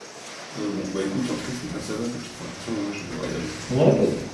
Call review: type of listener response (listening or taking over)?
taking over